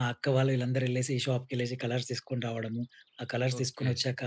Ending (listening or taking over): taking over